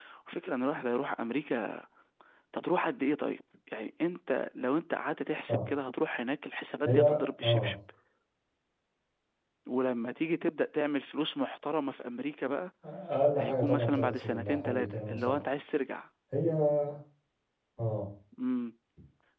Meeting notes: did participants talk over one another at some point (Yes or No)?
Yes